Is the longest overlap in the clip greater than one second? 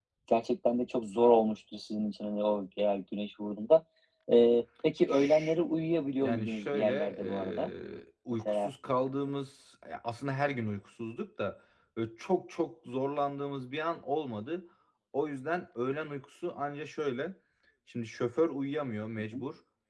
Yes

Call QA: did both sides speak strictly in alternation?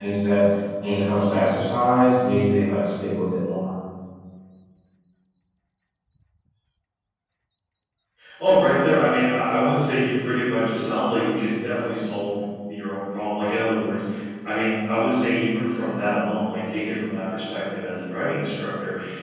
Yes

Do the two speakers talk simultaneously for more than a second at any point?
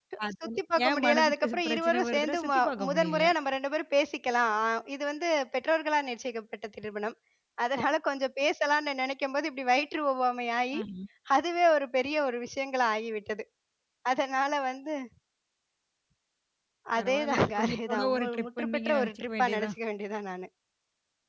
Yes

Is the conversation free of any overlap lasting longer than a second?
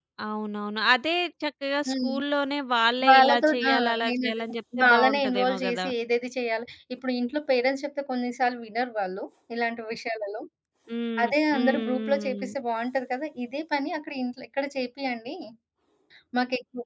No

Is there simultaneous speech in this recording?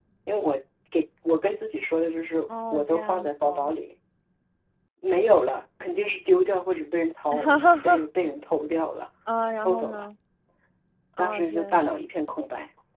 Yes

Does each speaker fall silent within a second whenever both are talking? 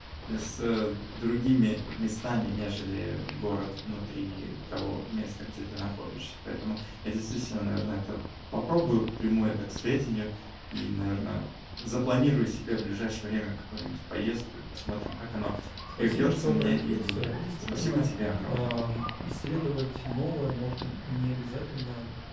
No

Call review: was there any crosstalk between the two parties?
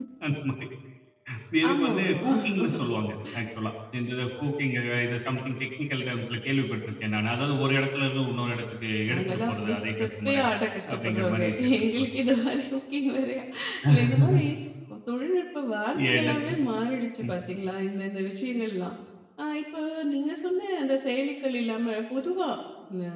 Yes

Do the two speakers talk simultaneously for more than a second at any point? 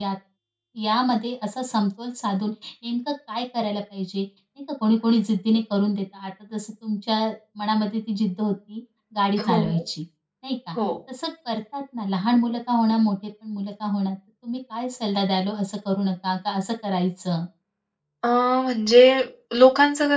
No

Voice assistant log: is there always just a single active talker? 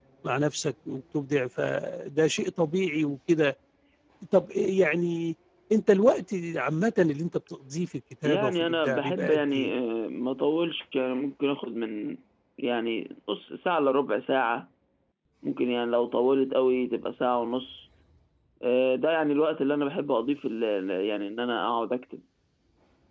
No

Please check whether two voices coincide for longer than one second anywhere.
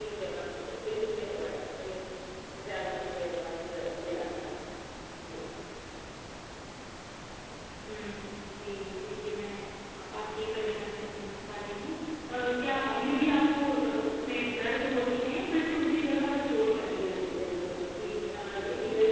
Yes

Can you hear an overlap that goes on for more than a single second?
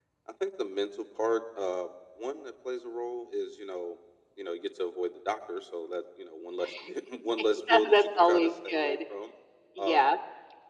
Yes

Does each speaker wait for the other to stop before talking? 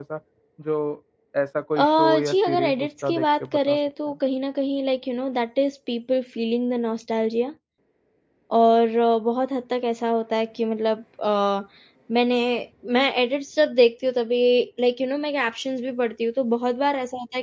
No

